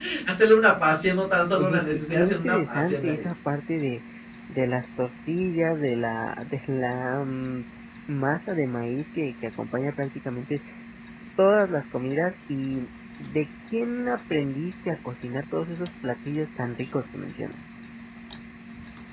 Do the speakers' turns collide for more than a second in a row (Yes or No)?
Yes